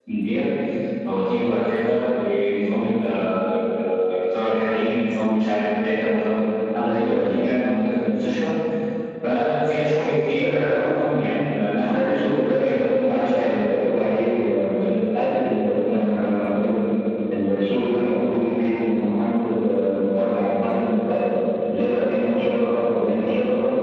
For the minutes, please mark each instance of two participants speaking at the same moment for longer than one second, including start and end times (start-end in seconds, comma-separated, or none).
11.9-13.6